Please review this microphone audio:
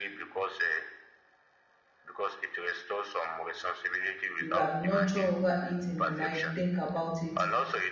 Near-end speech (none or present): present